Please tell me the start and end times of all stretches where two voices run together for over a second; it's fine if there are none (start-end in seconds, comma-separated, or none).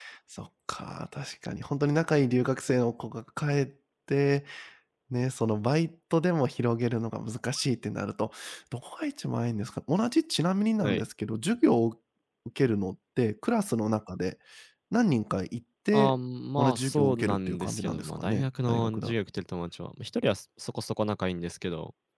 16.6-19.1